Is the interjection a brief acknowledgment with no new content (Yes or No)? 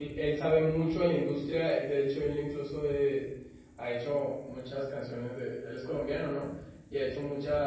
Yes